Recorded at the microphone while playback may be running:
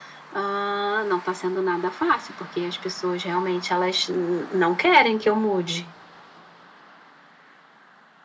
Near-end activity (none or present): none